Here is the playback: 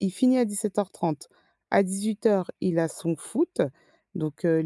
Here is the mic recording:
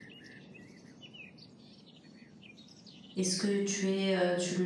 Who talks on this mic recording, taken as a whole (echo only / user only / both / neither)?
user only